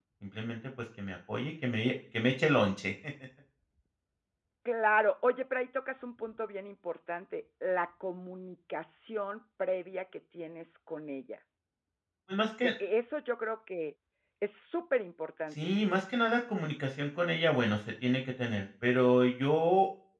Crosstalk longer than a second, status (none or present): none